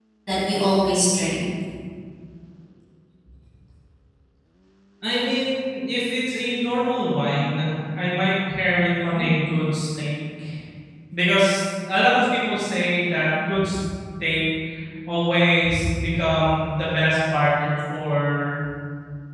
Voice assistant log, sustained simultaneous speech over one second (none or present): none